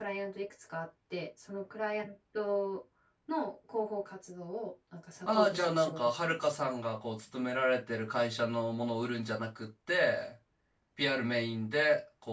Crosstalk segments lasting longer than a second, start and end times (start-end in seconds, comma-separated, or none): 5.3-6.5